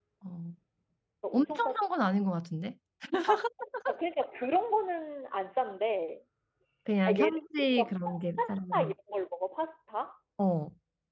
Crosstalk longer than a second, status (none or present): present